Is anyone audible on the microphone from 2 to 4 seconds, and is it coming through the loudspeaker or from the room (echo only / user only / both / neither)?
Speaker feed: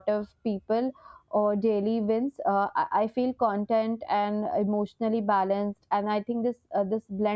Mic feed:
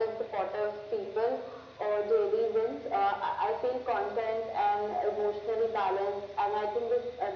echo only